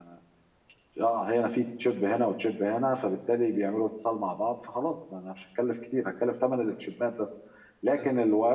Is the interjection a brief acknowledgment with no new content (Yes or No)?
Yes